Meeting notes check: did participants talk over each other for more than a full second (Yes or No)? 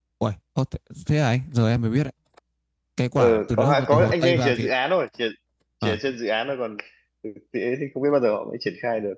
Yes